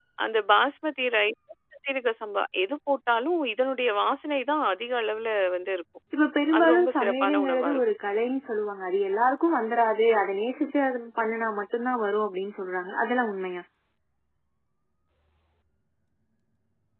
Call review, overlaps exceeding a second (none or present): present